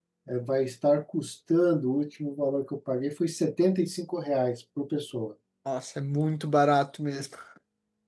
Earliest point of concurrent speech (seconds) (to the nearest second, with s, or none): none